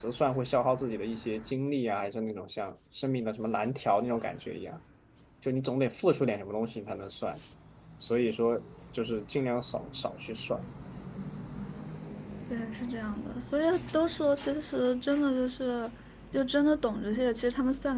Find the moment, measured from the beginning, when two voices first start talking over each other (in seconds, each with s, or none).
none